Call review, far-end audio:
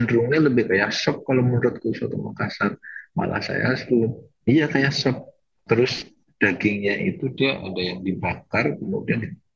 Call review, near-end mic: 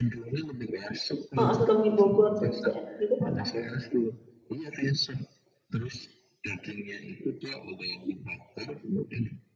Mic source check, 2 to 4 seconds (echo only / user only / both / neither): both